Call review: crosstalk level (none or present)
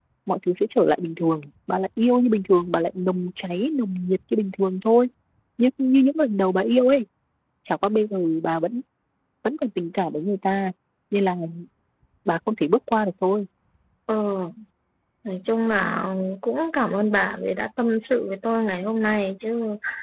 none